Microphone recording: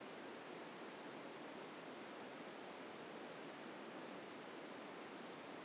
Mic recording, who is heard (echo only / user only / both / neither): neither